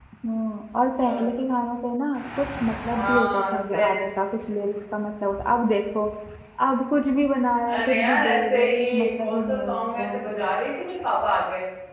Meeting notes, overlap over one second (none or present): present